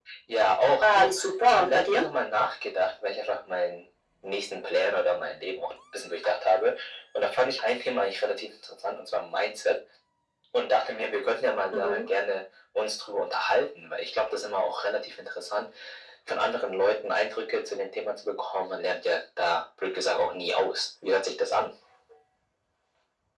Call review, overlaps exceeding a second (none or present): present